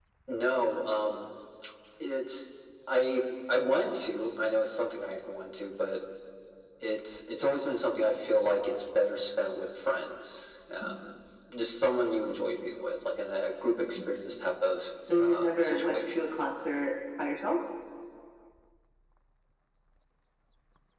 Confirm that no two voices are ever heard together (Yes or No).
No